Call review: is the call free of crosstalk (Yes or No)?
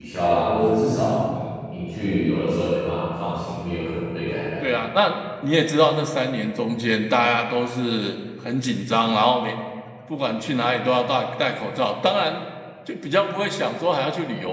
Yes